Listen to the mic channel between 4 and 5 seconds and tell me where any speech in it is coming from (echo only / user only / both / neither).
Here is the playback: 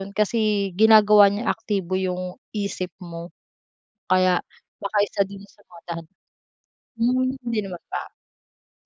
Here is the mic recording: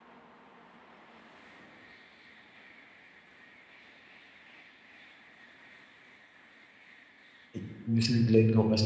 neither